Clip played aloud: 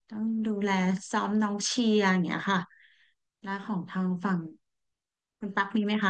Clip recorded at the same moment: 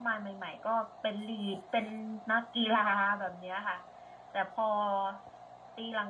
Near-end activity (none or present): present